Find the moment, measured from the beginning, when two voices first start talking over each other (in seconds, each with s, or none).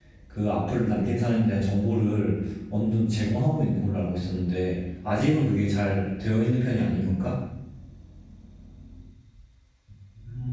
none